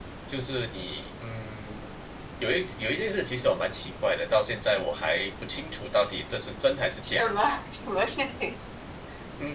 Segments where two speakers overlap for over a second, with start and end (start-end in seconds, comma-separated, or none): none